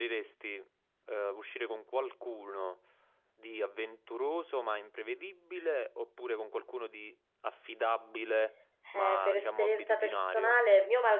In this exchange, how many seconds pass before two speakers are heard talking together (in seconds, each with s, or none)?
8.9 s